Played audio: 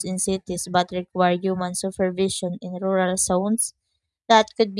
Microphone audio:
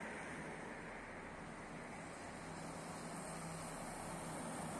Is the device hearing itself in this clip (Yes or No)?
No